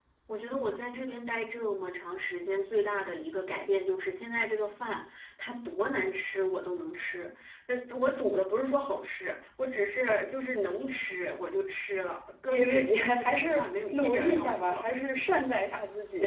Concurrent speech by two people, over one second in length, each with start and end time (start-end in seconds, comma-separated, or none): 12.5-14.8